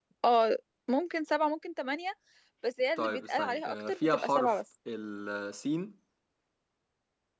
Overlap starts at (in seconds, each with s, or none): 3.0 s